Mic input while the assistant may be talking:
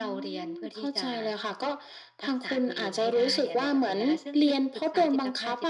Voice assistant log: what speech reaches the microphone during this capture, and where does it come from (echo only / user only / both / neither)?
echo only